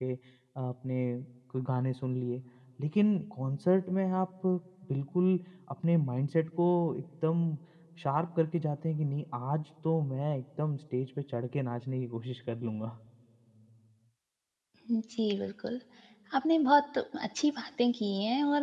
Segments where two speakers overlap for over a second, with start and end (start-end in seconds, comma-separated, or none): none